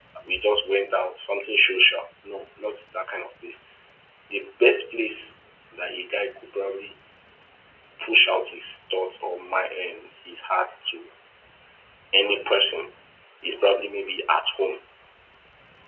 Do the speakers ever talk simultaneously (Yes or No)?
No